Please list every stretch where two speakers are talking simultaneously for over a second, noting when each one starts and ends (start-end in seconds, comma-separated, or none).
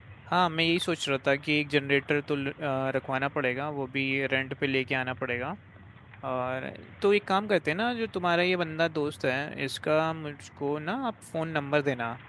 none